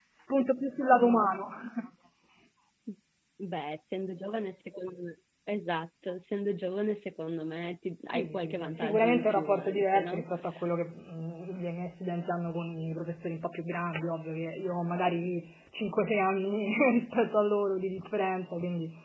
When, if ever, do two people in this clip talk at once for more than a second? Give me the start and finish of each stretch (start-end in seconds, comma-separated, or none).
8.1-10.2